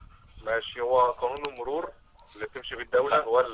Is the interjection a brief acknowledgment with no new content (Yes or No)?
Yes